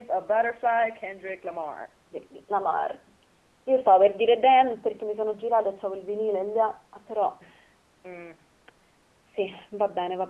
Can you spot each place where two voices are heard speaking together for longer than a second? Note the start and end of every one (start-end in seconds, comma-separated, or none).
none